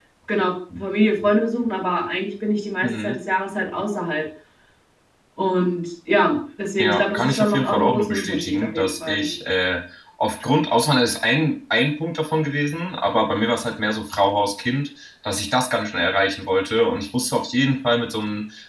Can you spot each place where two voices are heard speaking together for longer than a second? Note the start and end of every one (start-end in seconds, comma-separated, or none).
6.8-9.3